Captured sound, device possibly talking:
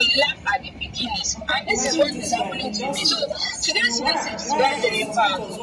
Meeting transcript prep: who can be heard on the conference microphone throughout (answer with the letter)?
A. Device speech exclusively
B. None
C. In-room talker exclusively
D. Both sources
D